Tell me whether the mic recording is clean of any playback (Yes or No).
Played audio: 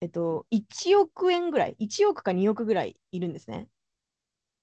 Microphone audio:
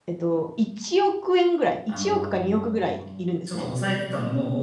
No